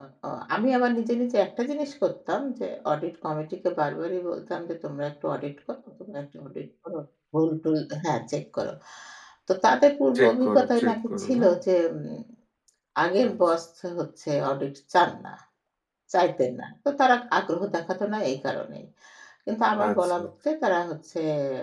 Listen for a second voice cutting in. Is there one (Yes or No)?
Yes